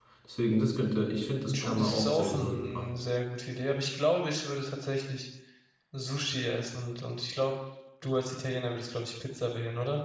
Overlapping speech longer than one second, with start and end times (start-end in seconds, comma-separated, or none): 1.6-2.9